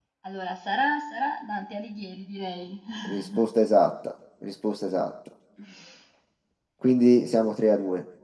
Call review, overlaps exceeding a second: none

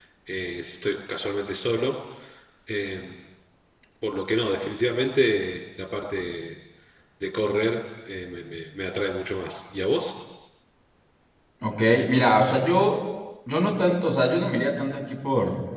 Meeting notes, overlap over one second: none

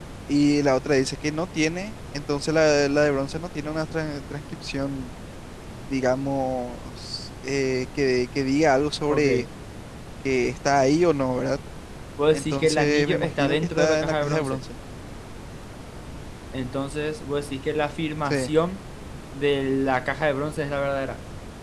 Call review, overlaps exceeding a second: present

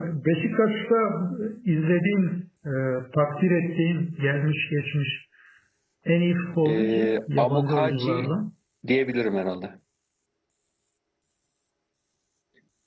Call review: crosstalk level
present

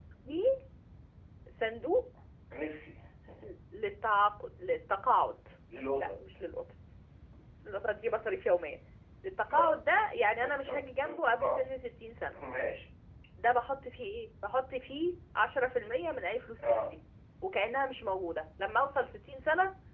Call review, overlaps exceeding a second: present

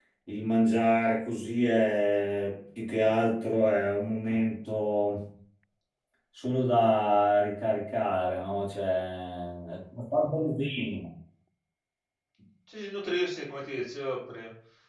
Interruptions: none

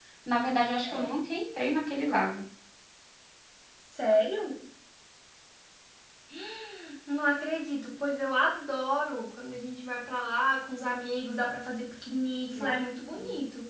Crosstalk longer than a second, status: none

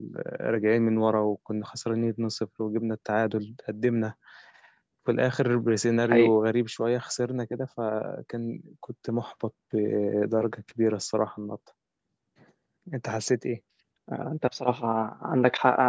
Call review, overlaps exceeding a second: none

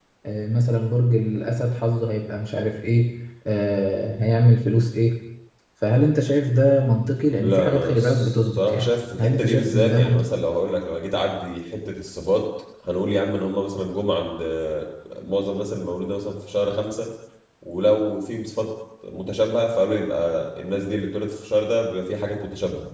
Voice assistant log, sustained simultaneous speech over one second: present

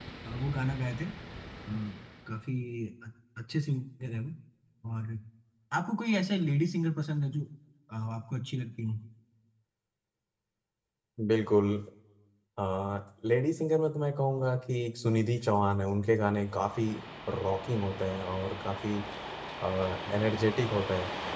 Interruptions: none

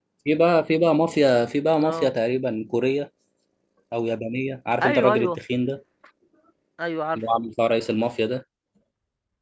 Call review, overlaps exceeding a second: none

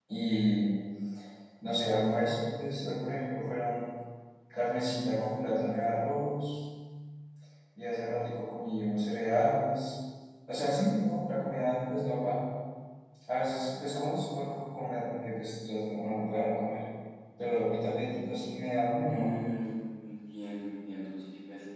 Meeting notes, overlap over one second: none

